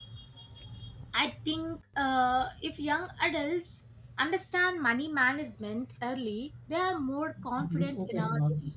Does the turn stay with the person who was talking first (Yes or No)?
Yes